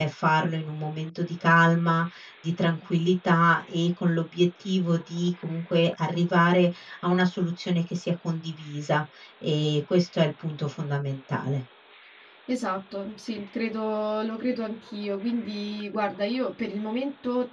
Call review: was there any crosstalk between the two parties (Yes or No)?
No